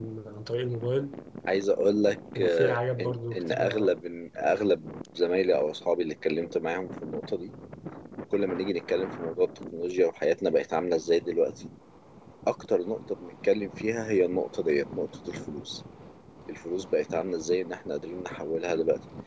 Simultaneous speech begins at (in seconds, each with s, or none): 2.4 s